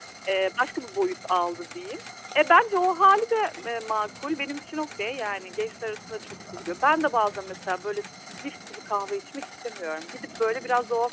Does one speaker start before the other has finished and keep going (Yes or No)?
No